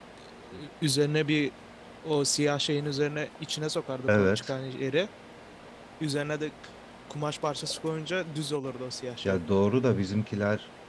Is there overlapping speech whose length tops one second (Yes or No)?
No